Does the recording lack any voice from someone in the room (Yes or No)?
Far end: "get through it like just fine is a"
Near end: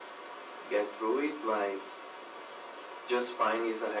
Yes